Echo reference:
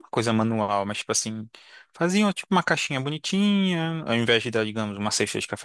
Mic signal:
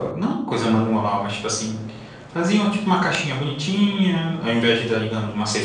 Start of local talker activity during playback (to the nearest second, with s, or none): none